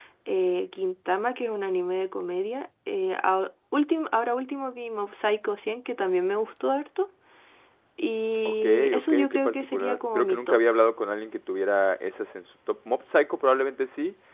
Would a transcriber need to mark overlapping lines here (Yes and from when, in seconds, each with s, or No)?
Yes, from 8.4 s